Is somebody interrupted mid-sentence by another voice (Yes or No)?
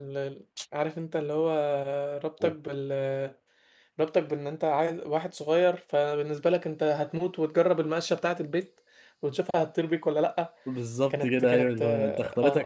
Yes